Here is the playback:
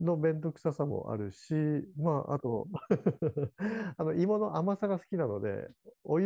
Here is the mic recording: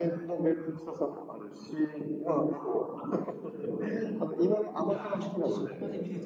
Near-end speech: present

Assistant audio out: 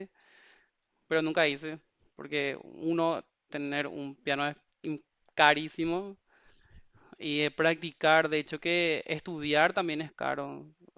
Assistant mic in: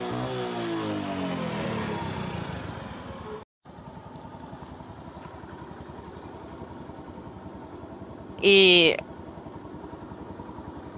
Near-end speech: present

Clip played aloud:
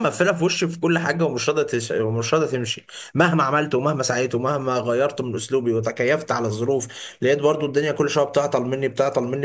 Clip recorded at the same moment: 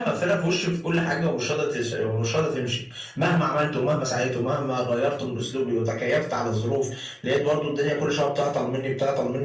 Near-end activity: none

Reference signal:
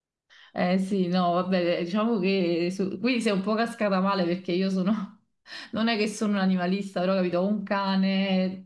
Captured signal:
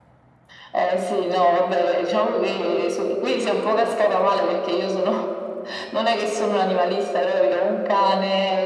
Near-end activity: none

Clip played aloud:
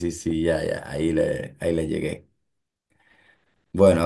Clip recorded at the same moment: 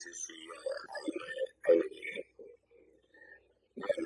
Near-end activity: none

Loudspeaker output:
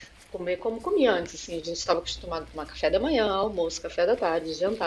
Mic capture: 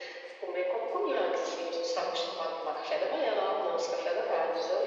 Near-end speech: none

